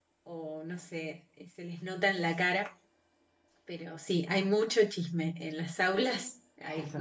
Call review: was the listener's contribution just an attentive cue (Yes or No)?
No